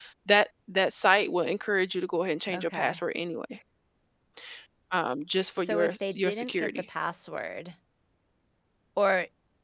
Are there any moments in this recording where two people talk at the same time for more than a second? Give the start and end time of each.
5.6-6.8

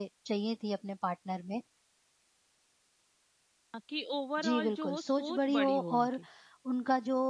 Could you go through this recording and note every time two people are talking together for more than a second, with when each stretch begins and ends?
4.4-6.2

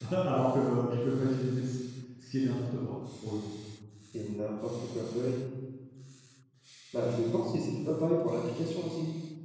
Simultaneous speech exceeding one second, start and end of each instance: none

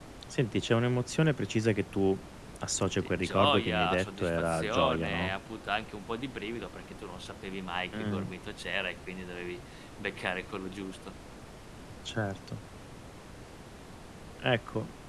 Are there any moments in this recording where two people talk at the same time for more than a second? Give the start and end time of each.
3.0-5.3

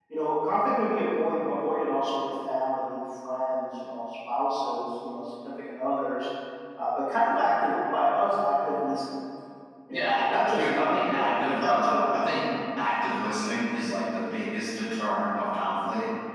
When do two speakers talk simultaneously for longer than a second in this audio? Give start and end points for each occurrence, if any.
9.9-12.1

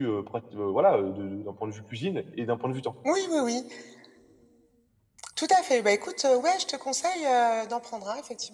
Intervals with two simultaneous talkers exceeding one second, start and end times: none

